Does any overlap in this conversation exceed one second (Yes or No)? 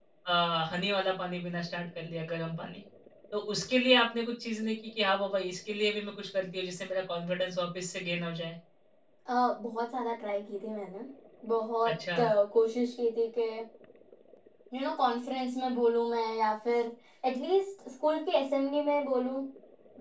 No